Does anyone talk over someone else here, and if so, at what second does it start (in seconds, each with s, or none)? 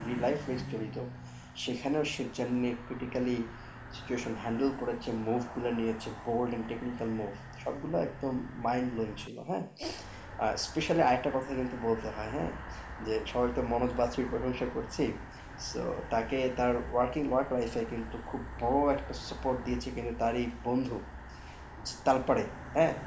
none